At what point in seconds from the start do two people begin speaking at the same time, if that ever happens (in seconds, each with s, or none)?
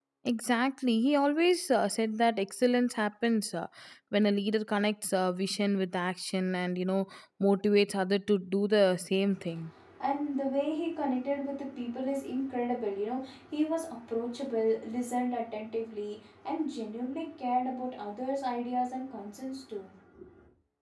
none